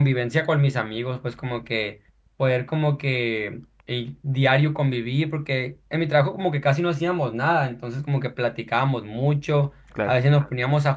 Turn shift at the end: No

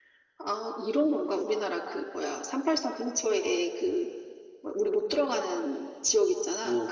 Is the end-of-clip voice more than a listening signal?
Yes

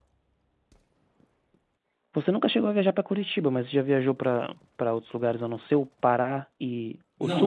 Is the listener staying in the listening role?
No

